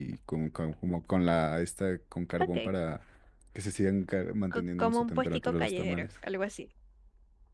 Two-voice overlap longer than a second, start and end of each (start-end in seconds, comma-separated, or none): 4.5-6.1